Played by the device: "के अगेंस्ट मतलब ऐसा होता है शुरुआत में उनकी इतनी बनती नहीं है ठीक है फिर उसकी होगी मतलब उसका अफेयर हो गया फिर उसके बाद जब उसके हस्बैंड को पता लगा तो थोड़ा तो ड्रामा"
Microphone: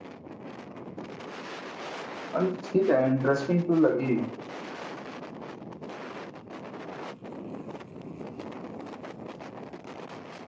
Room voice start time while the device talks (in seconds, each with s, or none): 2.4 s